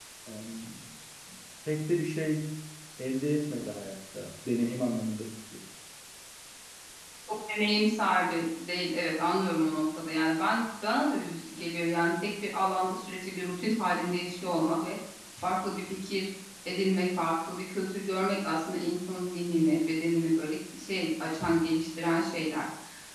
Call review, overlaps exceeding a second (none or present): none